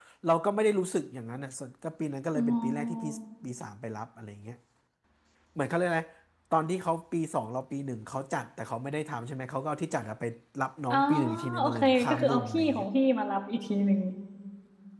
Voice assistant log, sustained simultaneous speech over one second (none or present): present